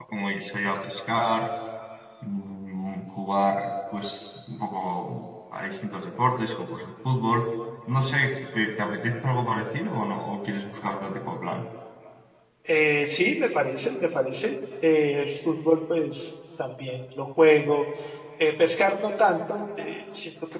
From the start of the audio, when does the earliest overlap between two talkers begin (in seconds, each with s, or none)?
none